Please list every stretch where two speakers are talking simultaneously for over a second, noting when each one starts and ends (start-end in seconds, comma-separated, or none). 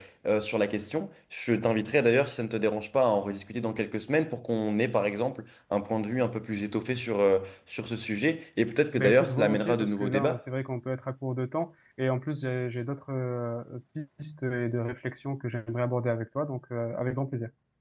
9.0-10.4